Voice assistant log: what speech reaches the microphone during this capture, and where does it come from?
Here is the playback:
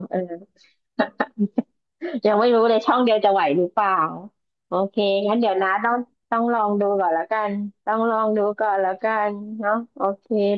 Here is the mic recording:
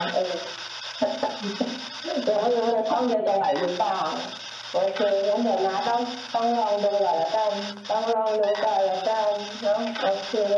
echo only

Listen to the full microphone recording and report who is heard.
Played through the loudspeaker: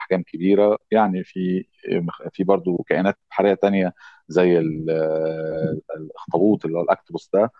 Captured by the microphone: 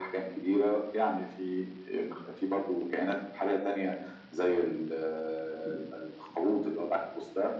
echo only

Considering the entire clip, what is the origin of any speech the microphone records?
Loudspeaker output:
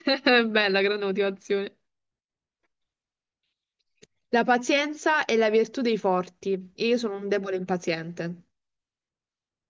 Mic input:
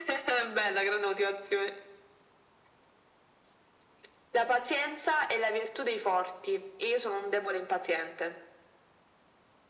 echo only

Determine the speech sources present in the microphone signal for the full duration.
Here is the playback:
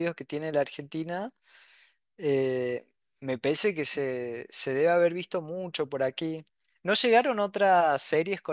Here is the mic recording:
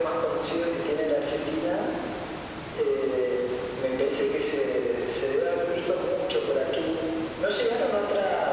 echo only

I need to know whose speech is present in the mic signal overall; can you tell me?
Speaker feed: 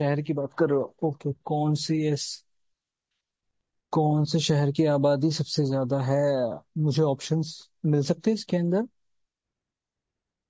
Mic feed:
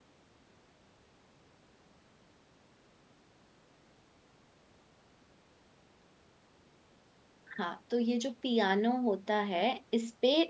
user only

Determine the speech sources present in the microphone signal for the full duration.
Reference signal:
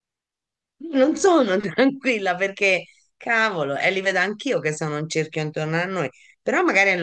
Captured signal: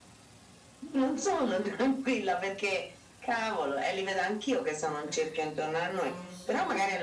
both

